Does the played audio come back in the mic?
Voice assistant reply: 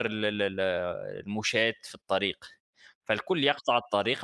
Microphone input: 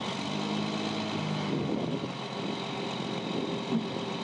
No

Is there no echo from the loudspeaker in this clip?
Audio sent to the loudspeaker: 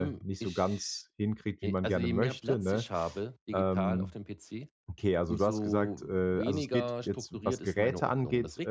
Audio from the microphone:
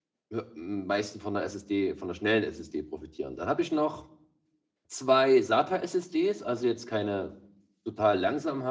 Yes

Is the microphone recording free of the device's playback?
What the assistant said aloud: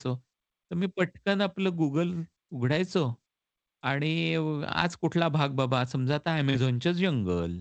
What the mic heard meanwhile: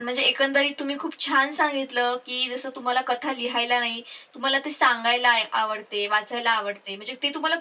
Yes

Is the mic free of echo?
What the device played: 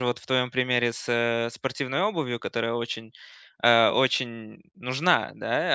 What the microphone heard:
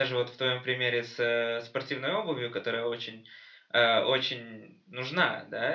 No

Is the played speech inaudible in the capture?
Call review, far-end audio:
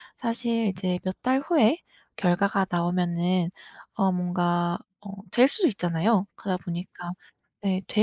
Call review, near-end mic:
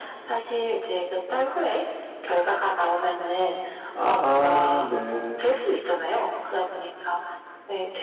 No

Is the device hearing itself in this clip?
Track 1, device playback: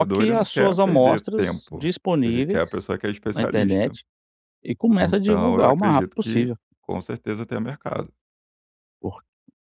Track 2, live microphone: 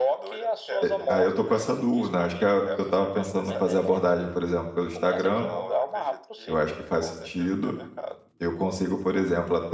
Yes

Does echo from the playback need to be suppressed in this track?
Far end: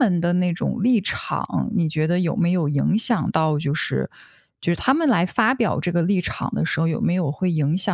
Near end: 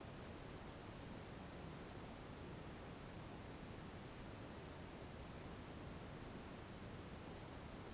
No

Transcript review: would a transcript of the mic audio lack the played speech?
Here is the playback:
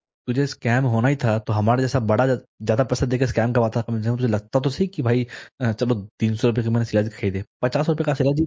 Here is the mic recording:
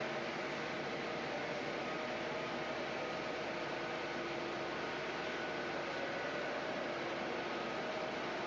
Yes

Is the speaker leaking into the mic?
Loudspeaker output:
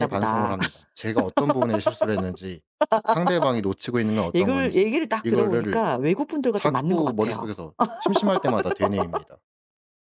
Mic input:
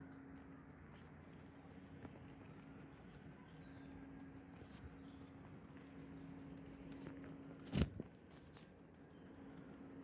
No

